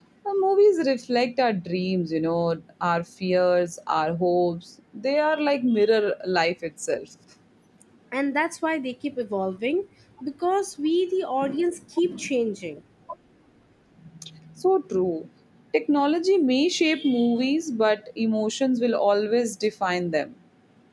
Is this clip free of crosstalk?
Yes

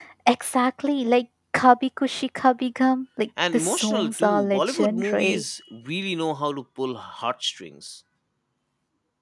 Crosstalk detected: Yes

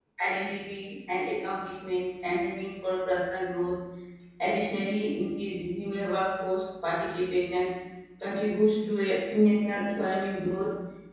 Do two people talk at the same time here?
No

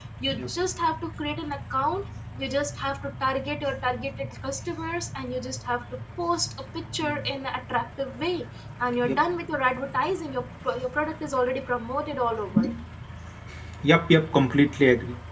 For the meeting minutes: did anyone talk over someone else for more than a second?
No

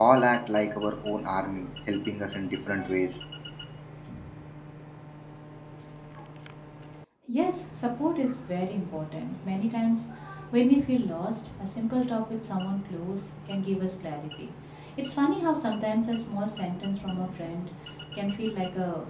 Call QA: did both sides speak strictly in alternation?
Yes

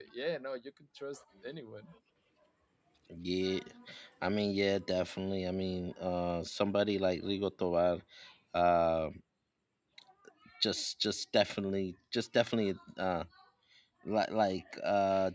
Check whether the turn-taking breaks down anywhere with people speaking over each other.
No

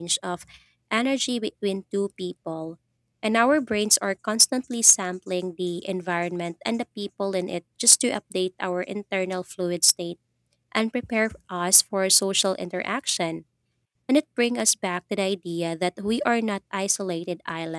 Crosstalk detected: No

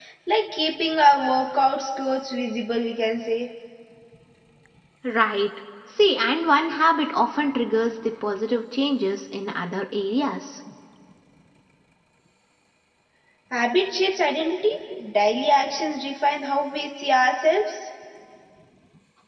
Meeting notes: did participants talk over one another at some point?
No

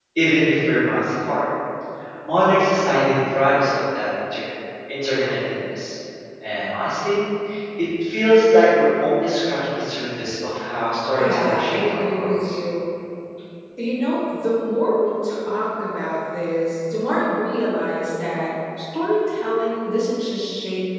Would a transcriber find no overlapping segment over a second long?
No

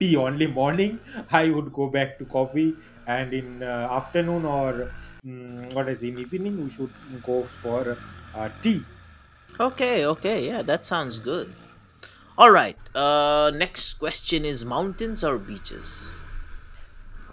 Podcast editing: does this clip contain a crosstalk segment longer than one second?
No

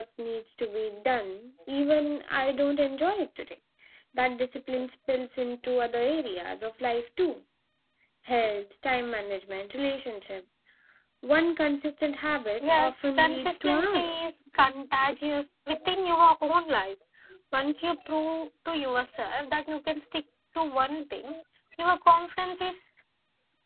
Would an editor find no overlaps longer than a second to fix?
No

